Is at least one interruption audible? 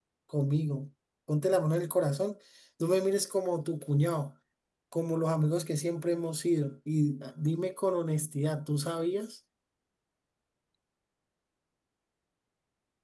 No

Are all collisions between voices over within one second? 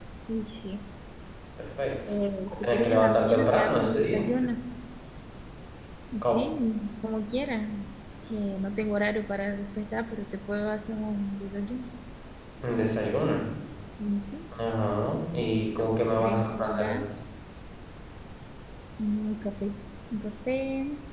No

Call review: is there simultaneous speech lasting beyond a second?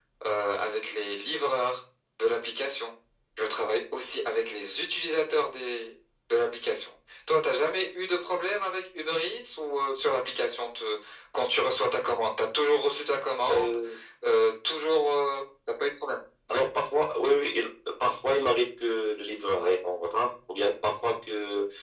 No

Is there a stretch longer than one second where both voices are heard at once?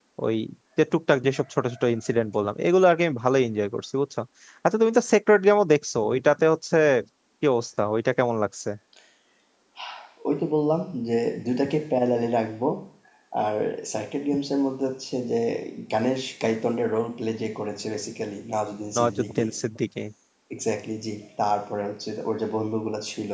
No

